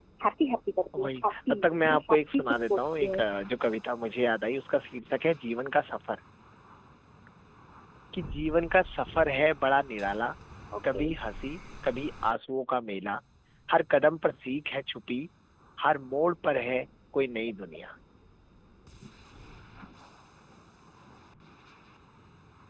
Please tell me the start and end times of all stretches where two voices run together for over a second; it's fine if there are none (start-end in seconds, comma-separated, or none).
1.0-3.2